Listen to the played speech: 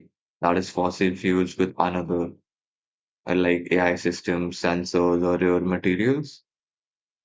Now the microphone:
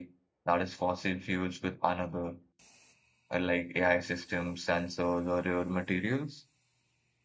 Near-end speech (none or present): none